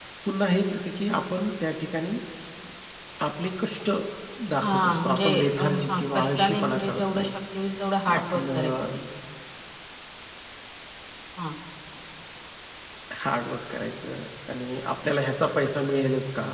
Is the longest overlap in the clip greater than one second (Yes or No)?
Yes